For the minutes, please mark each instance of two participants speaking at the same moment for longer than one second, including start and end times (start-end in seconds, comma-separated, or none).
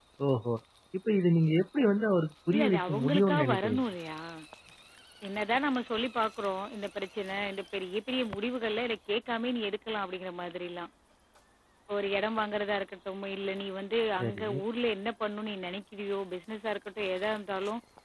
2.5-3.8